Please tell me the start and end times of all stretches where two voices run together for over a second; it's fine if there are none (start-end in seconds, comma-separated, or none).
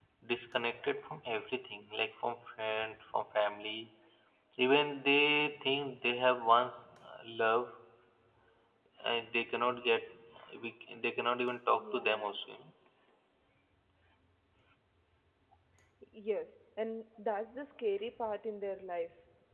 none